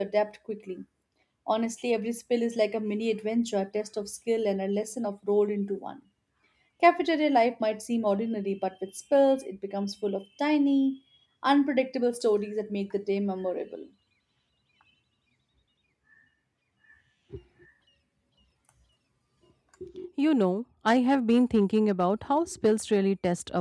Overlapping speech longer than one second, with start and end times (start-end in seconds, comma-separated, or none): none